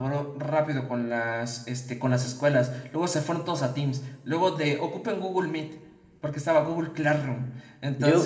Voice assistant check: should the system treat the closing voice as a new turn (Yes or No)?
Yes